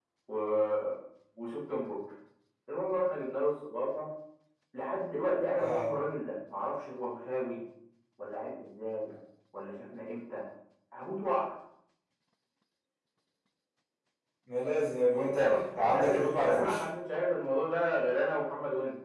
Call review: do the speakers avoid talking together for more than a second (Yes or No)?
No